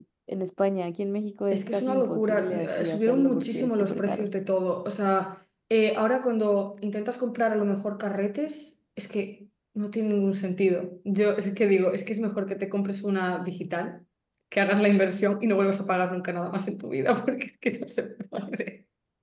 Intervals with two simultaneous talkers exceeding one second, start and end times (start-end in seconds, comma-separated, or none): 1.5-4.3